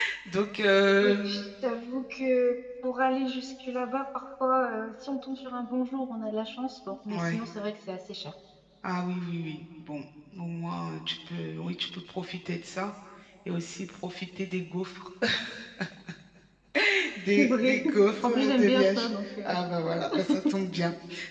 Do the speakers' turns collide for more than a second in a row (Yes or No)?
Yes